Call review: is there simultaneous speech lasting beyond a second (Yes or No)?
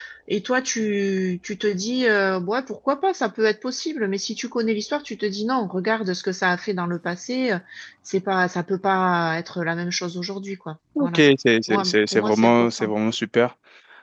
Yes